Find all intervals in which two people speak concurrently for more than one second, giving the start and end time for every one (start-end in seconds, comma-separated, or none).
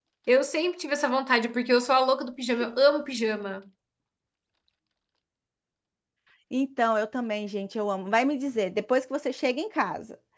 none